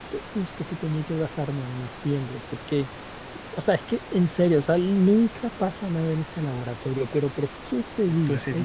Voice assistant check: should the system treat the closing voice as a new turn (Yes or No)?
Yes